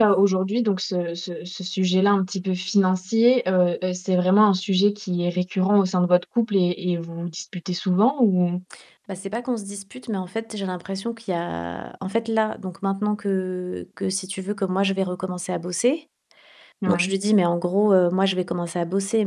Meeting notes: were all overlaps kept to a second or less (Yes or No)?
Yes